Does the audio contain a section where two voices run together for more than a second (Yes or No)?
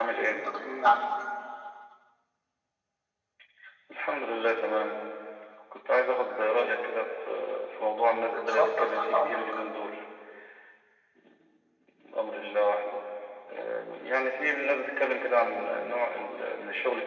Yes